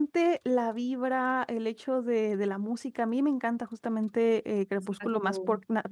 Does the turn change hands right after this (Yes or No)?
No